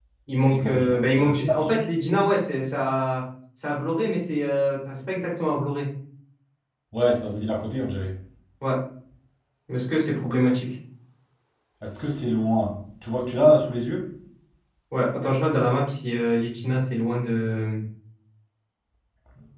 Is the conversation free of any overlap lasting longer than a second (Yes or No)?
No